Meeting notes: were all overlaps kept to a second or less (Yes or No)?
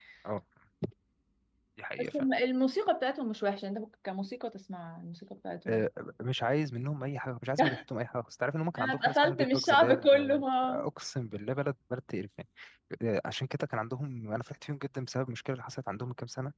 No